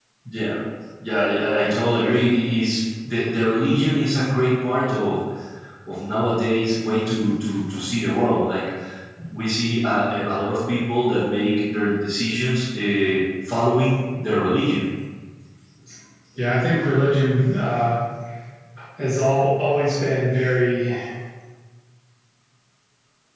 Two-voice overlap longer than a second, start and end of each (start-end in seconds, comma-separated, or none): none